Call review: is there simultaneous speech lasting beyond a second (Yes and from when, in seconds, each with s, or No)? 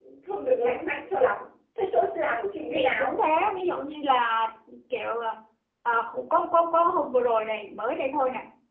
No